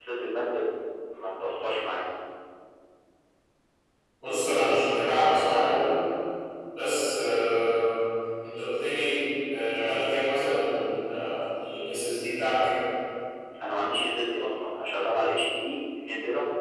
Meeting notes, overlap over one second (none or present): none